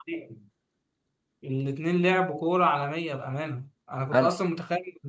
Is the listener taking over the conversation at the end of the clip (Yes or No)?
No